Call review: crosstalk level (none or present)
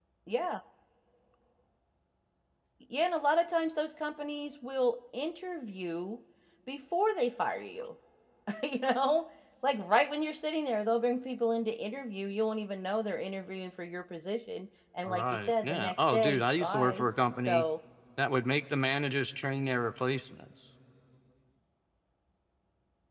present